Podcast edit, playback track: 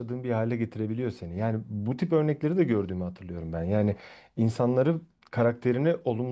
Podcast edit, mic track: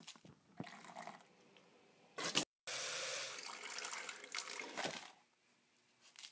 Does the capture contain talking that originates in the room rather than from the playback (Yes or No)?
No